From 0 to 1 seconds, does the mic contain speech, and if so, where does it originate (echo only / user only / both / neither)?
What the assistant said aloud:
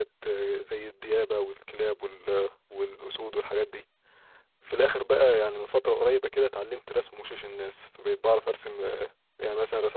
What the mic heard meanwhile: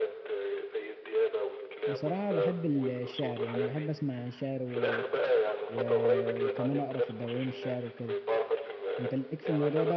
echo only